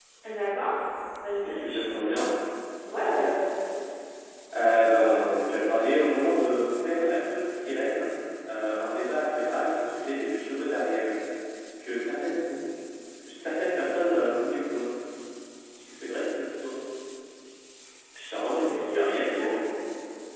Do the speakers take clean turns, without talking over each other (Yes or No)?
No